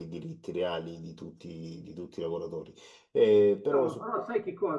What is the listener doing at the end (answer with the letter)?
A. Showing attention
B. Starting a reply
B